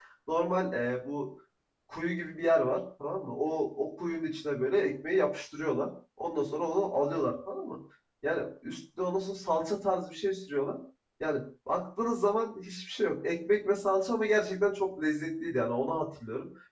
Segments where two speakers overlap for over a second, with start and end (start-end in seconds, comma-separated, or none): none